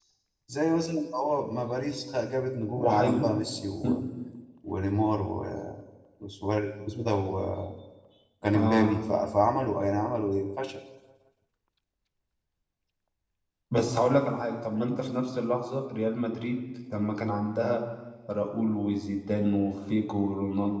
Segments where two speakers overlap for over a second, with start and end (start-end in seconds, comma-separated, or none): none